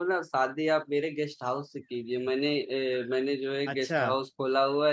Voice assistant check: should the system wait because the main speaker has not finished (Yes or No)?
Yes